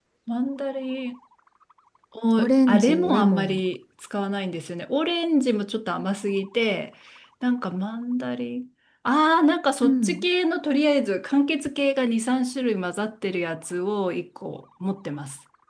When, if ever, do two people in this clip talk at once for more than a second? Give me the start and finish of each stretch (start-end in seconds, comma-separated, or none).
2.4-3.6